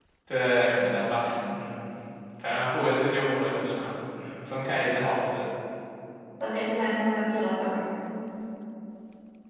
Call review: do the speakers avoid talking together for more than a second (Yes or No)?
Yes